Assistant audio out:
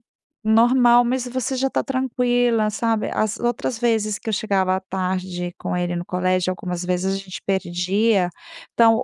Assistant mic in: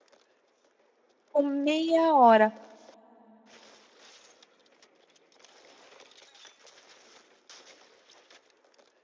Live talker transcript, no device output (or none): Com meia hora,